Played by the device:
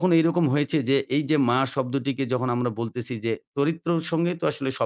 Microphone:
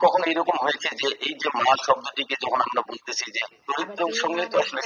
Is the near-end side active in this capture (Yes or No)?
Yes